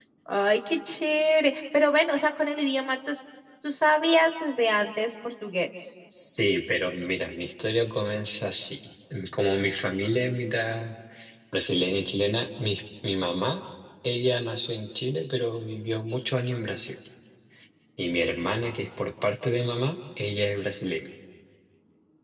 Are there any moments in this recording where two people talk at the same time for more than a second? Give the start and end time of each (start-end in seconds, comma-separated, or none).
none